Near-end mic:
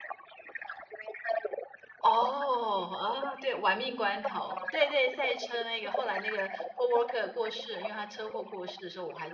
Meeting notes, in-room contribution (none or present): present